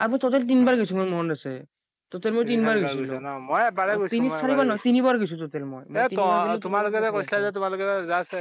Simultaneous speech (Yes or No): Yes